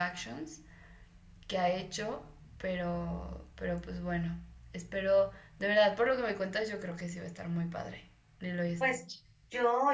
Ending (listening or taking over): taking over